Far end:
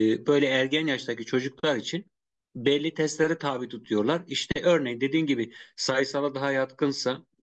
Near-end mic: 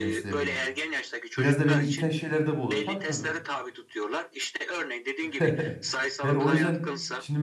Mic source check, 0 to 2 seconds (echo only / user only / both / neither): both